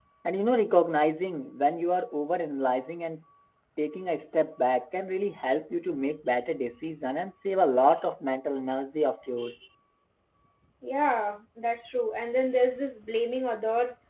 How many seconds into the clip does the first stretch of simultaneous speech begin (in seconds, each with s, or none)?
none